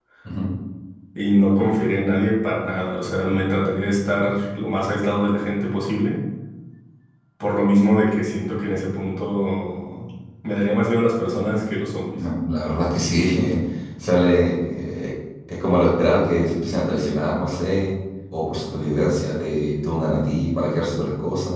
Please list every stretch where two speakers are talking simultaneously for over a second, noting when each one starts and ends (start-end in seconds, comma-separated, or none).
none